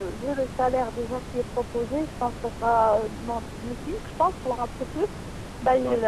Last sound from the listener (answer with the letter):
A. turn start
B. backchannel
B